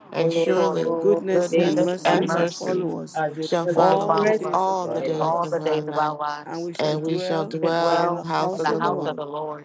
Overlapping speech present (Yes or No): Yes